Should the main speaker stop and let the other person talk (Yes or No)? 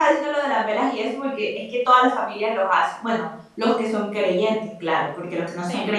No